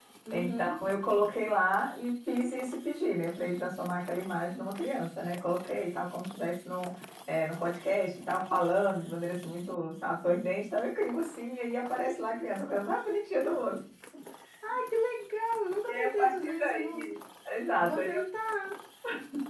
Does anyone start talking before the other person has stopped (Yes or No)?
Yes